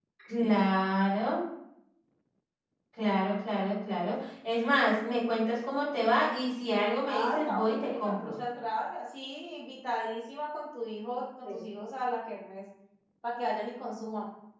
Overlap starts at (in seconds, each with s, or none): 7.1 s